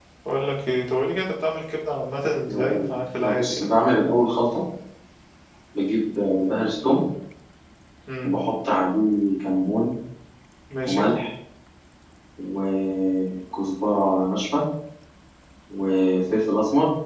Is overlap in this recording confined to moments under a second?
No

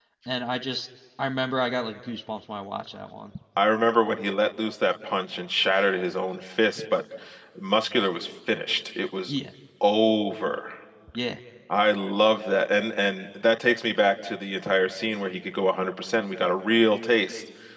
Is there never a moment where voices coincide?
Yes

